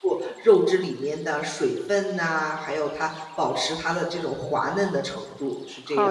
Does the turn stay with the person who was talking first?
No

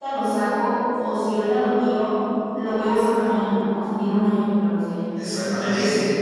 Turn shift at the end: Yes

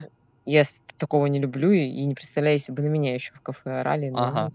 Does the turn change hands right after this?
Yes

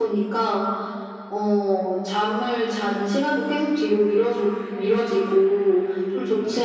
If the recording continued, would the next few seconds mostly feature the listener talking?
No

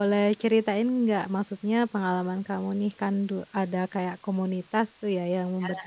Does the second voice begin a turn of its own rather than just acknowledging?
No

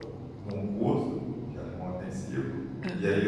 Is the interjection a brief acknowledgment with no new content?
Yes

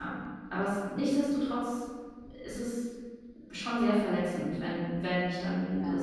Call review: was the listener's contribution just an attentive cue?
Yes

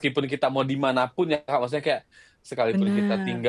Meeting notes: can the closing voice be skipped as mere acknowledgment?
Yes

